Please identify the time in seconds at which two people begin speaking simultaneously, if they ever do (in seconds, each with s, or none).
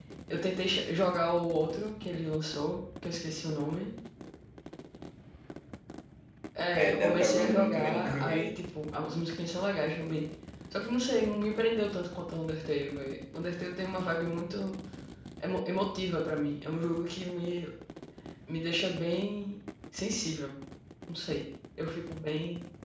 6.8 s